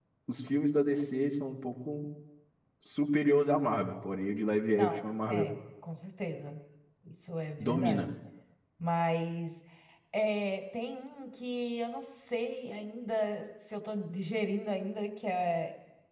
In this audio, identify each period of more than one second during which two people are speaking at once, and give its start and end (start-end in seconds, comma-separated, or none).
none